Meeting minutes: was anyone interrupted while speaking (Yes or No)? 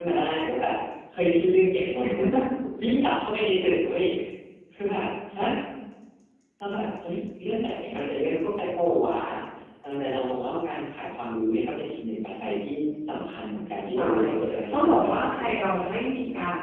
Yes